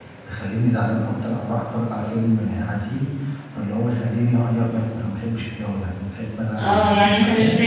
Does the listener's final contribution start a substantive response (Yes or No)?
Yes